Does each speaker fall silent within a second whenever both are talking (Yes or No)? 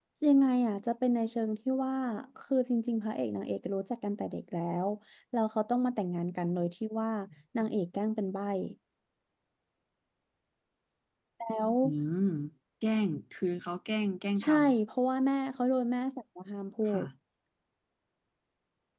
Yes